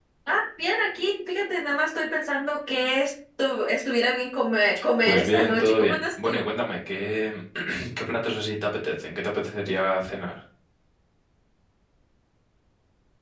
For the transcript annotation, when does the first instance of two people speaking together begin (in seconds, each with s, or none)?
5.0 s